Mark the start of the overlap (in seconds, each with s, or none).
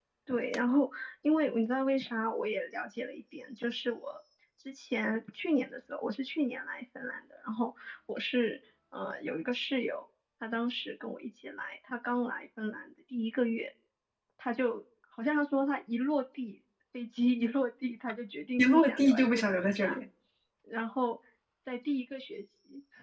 18.6 s